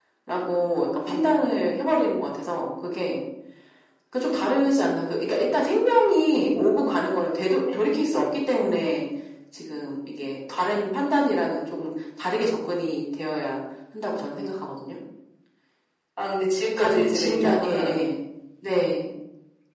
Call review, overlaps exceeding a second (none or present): present